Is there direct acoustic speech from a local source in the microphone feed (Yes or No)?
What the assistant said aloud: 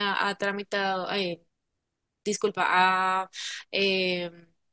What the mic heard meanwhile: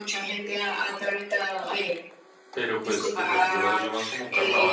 Yes